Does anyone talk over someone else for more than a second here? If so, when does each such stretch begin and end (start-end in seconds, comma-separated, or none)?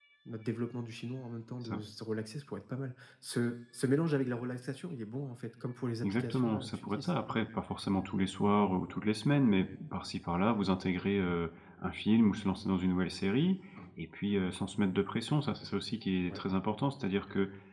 6.0-7.5